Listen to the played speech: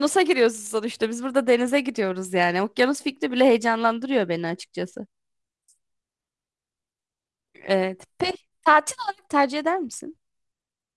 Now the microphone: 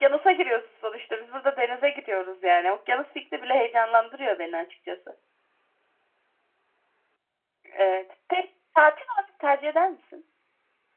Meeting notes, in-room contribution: none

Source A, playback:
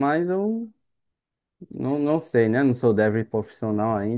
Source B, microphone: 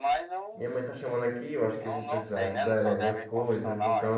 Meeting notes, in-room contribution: present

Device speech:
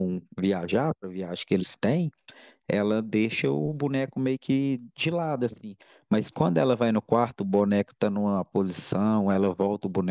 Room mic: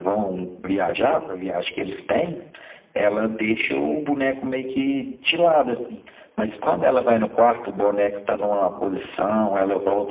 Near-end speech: none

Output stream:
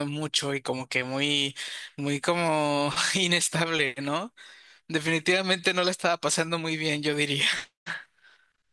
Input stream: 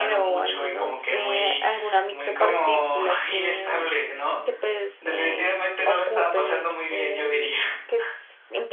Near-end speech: present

